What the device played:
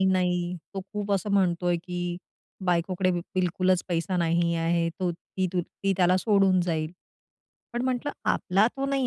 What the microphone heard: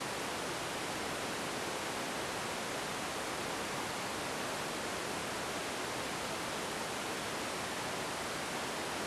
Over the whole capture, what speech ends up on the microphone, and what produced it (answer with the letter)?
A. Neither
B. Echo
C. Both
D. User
A